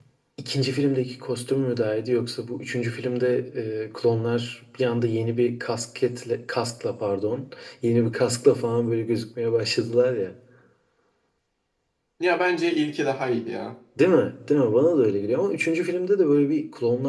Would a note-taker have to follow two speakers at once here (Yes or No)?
No